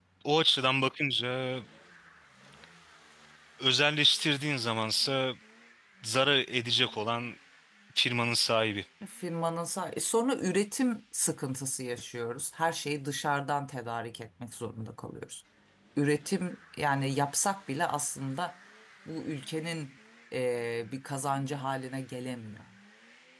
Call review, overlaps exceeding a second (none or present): none